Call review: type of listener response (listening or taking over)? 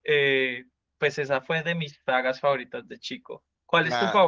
taking over